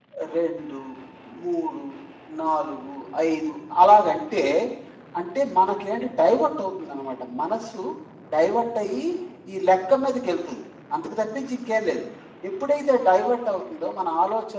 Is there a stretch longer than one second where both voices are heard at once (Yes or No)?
No